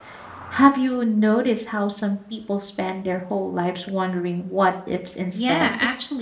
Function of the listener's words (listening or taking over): taking over